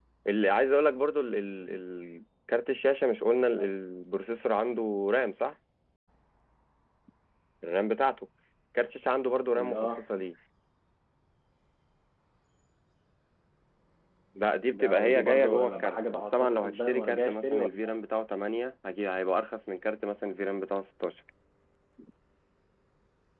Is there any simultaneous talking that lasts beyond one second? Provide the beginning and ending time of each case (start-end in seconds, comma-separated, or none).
14.7-17.9